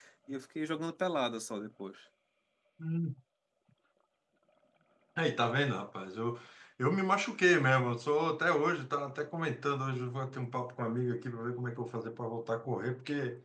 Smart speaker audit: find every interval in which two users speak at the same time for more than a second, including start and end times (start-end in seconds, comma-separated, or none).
none